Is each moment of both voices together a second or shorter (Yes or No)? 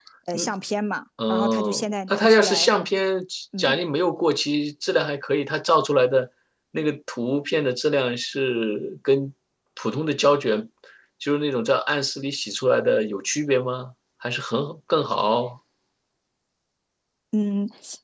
No